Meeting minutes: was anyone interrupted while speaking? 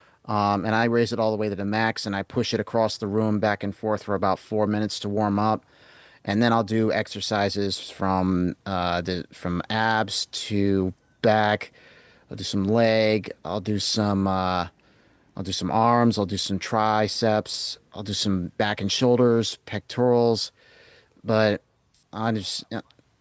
No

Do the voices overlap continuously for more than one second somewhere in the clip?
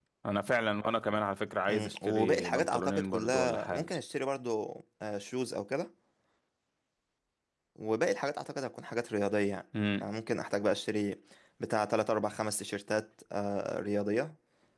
Yes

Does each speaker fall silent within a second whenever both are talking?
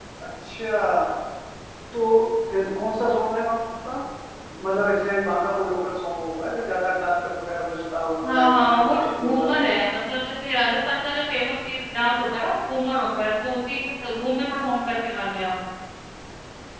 No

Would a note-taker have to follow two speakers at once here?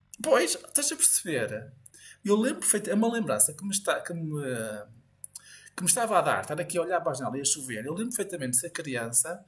No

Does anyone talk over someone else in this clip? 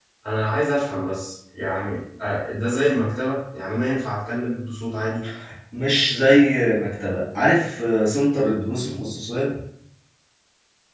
No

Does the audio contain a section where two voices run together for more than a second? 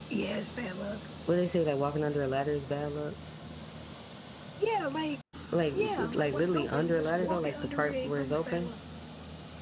Yes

